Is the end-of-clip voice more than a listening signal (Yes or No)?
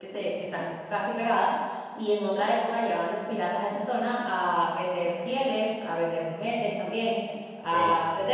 No